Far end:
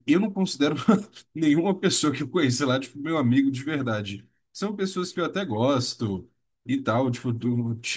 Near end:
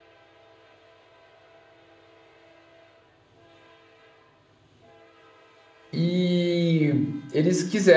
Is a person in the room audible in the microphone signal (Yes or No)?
Yes